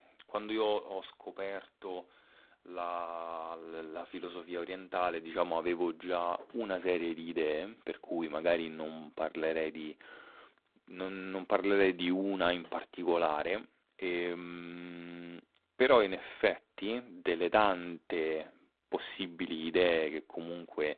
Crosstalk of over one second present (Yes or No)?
No